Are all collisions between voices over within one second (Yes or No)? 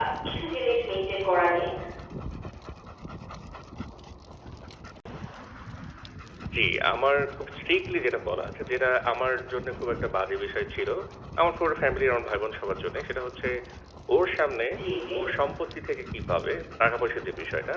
Yes